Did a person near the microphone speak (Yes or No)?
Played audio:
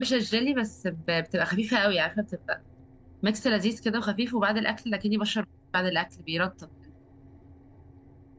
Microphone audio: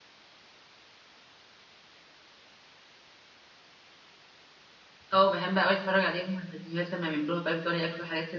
Yes